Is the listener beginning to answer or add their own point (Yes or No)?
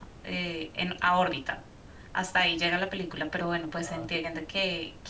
No